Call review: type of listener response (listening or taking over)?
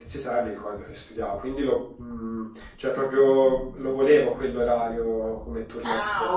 taking over